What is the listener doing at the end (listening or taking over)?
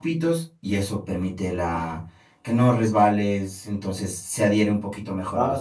taking over